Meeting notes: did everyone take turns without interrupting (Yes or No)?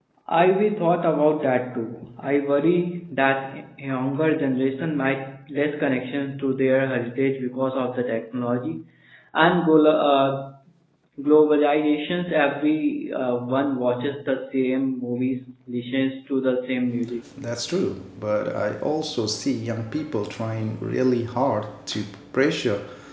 Yes